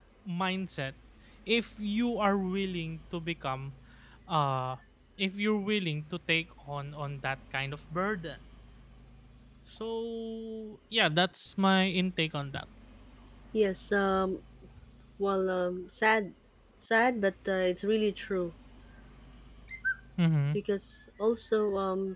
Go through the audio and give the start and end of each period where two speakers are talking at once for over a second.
none

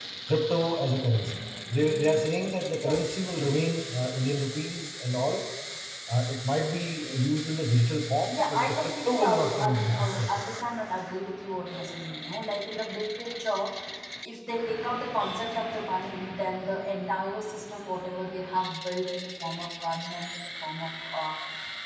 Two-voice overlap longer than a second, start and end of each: 8.3-10.4

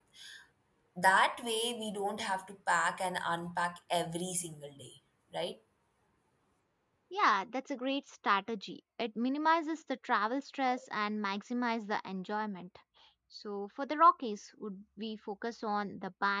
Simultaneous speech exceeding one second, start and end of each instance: none

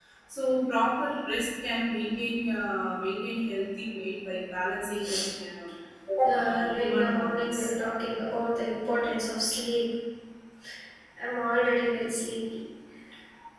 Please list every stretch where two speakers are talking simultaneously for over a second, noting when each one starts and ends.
6.4-7.7

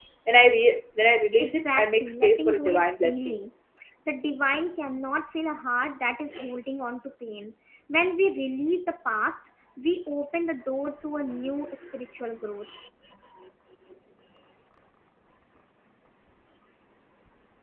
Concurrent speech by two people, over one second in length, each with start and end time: 1.4-3.4

